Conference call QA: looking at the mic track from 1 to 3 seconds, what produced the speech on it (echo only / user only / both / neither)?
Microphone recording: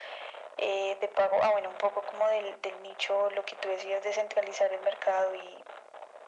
echo only